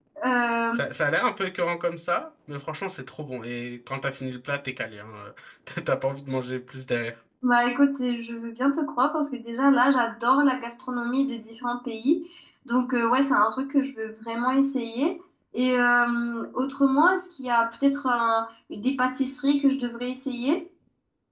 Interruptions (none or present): none